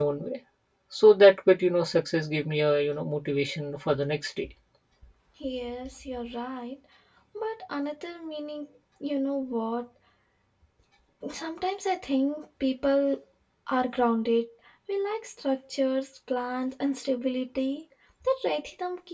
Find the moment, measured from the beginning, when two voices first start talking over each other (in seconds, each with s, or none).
none